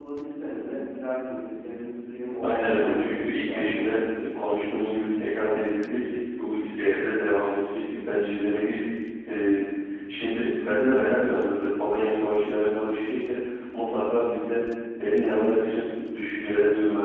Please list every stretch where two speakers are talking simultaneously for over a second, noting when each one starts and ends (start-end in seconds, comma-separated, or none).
2.4-3.7